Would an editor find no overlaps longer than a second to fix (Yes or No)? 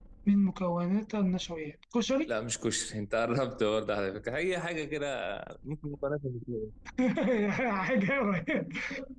Yes